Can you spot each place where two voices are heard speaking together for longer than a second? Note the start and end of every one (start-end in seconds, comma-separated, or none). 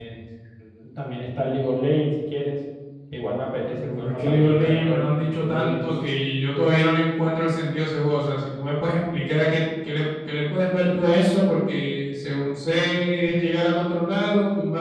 3.7-5.9